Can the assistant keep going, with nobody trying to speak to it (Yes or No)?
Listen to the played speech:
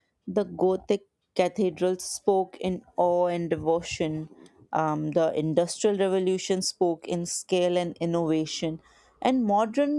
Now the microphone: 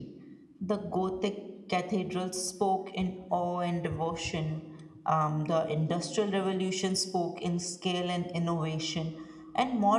Yes